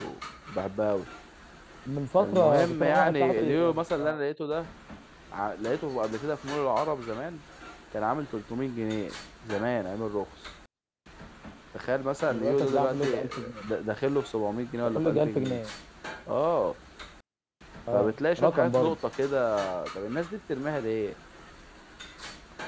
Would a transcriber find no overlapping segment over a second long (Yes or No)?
No